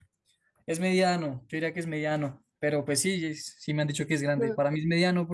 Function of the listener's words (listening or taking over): listening